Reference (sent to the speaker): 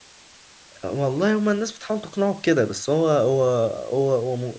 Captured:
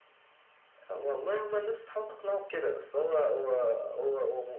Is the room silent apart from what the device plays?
Yes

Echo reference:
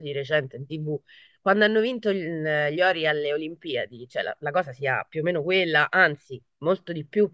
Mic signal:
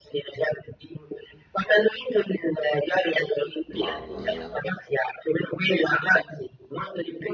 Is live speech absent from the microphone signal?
No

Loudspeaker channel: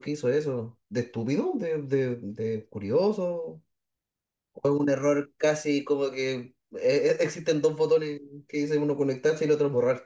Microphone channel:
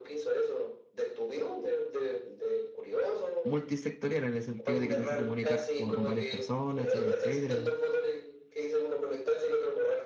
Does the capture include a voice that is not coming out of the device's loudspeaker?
Yes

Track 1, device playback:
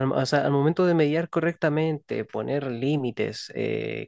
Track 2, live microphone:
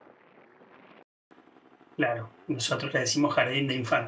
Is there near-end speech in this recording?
Yes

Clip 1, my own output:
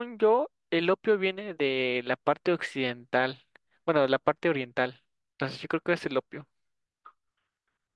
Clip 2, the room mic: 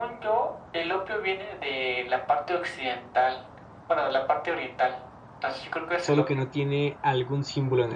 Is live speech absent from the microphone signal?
No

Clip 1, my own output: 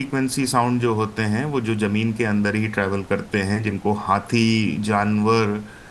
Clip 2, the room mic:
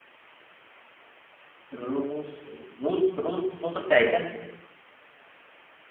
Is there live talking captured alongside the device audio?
Yes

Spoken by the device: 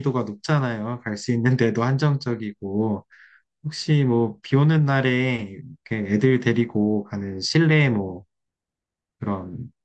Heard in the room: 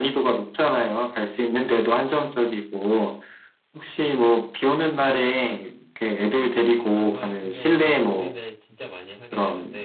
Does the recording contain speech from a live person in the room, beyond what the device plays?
Yes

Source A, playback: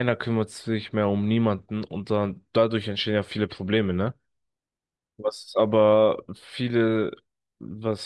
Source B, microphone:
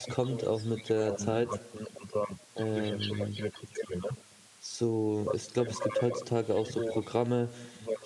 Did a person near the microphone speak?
Yes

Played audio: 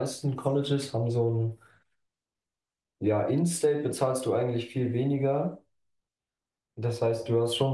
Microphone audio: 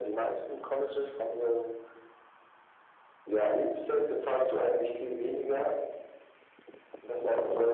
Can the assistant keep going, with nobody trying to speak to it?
Yes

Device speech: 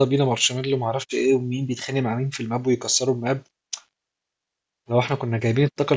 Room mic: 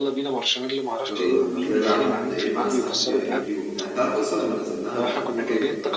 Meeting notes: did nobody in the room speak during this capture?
No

